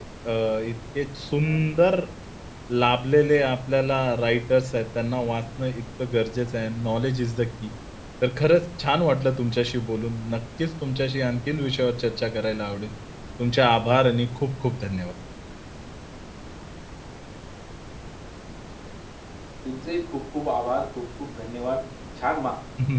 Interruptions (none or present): none